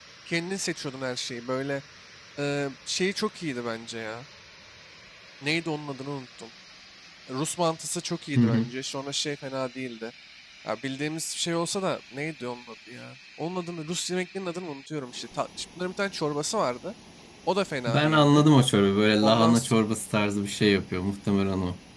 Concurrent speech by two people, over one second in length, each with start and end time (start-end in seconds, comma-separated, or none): none